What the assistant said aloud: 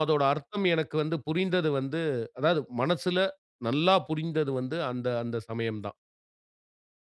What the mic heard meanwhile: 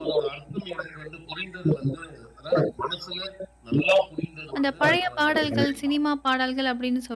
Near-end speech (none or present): present